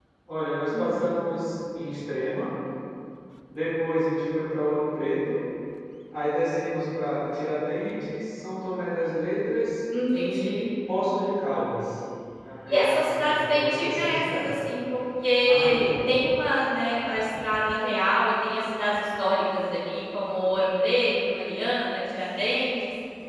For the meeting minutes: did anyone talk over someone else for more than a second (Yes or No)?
Yes